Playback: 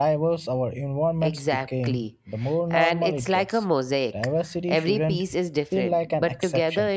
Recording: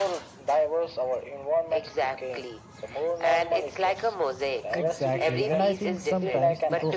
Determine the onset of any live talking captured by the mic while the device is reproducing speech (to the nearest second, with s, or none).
5 s